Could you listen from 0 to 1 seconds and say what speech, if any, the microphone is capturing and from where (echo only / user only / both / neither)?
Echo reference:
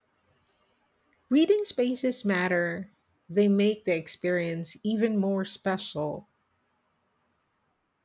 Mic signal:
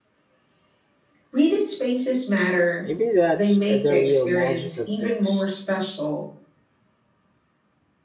neither